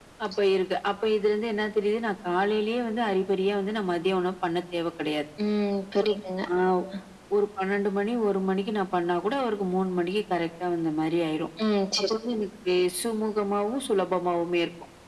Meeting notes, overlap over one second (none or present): none